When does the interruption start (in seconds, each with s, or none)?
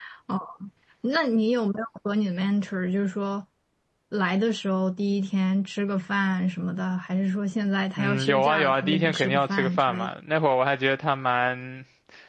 8.0 s